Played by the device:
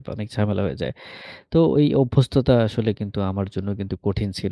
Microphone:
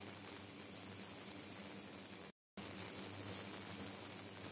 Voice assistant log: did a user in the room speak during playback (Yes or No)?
No